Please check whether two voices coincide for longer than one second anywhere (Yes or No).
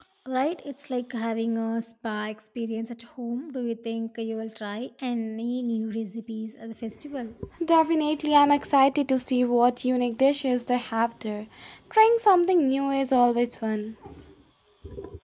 No